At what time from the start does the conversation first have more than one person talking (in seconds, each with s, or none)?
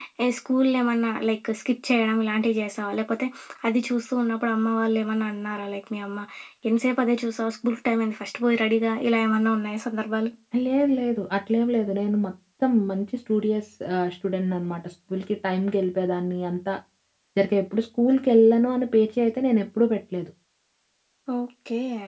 none